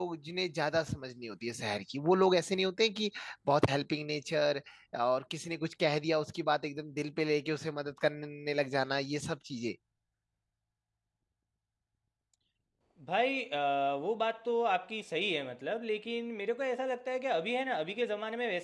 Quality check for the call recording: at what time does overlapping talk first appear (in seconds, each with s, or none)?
none